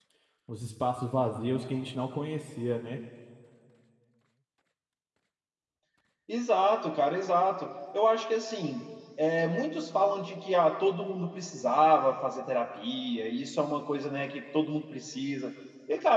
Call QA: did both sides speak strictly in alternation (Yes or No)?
Yes